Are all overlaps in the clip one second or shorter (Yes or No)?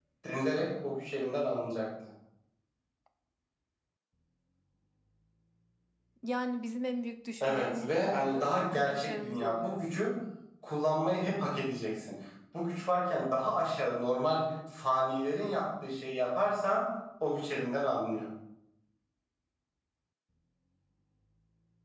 No